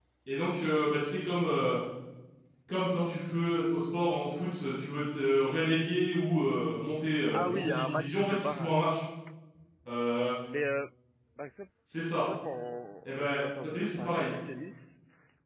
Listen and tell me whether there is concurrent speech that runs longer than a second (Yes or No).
Yes